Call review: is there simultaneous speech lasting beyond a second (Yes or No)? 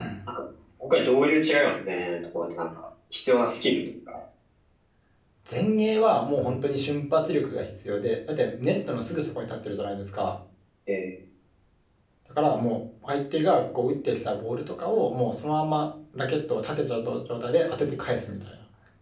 No